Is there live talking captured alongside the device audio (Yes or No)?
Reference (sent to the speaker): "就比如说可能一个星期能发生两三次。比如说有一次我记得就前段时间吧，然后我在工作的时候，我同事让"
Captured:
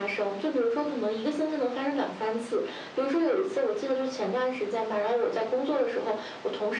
No